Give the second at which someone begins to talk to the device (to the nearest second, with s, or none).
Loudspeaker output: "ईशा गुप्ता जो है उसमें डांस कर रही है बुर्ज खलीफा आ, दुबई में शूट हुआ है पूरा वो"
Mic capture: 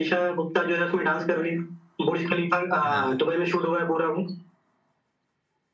3 s